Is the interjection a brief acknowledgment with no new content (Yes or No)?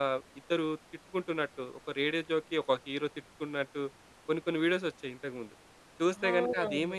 Yes